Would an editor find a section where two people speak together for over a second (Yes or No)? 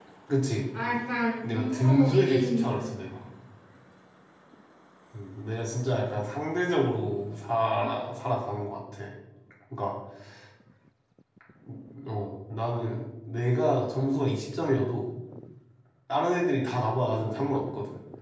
Yes